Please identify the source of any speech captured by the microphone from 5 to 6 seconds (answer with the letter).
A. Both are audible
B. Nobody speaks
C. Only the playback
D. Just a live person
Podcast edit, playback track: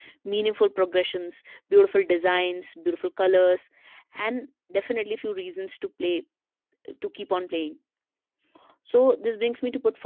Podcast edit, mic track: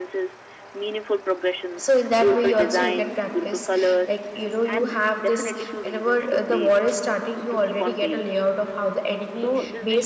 A